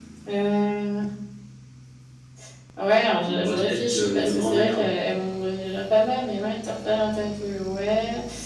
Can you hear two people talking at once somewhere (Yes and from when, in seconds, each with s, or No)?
Yes, from 3.2 s